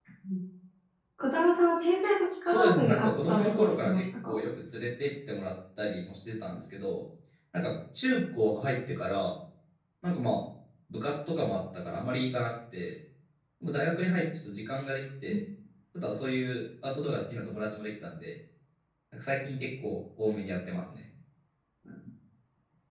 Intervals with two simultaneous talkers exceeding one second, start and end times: 2.5-4.4

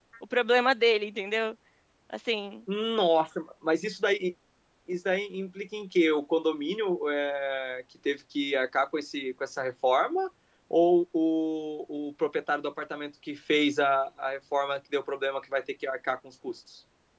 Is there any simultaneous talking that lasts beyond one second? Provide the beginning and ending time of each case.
none

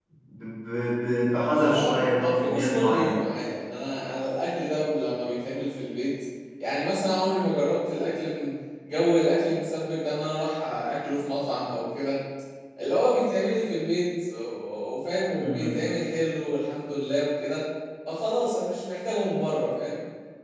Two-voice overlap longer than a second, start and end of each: 1.5-3.2

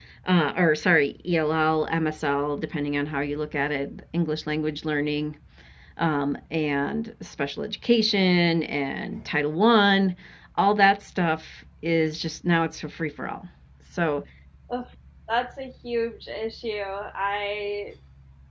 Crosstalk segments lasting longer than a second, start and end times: none

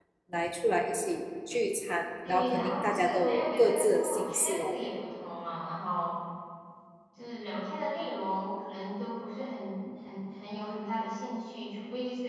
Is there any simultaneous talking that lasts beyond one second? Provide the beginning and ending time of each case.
2.3-4.8

